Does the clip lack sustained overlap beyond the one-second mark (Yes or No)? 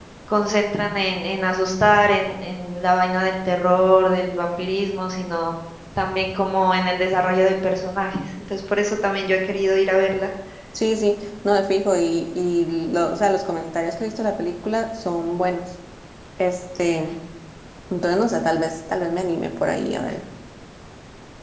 Yes